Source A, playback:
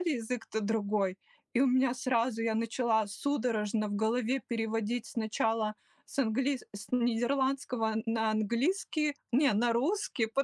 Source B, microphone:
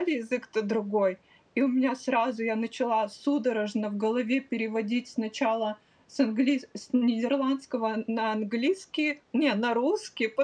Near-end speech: none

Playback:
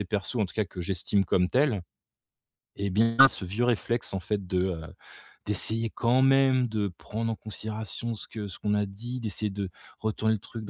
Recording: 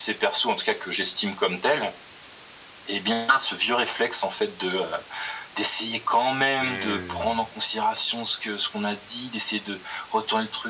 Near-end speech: present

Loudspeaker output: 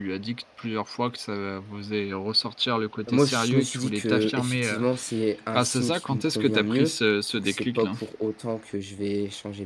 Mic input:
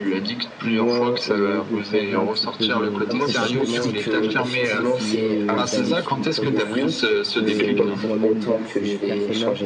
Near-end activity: present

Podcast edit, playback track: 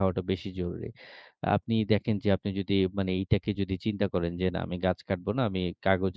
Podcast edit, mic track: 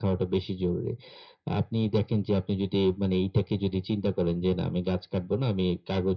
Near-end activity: none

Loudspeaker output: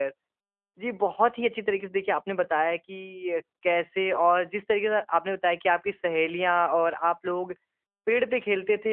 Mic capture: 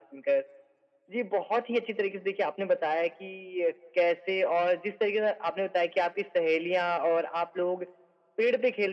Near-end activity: none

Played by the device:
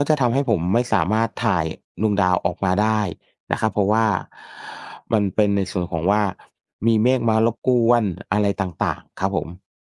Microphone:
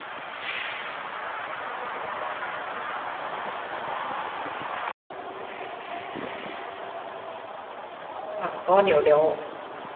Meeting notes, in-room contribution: present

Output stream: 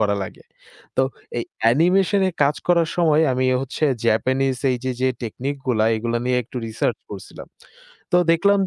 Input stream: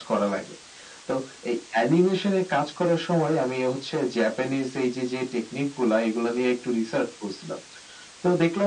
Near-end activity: none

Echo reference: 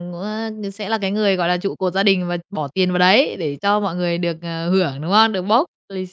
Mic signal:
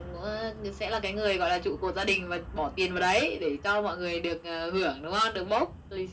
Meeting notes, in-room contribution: none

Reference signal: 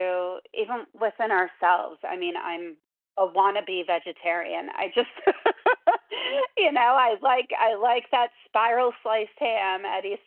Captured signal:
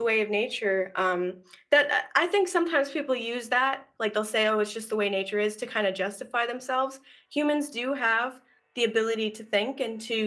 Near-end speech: present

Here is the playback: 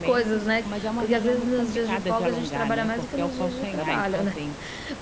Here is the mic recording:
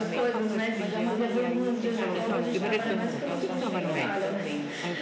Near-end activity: present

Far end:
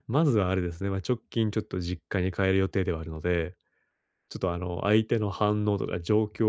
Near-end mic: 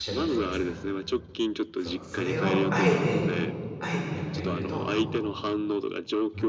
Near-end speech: present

